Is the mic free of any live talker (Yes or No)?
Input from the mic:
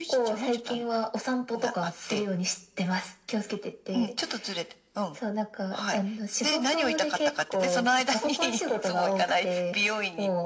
Yes